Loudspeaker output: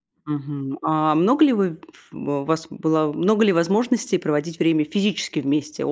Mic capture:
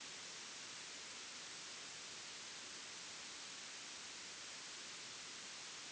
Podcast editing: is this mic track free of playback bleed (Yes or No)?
Yes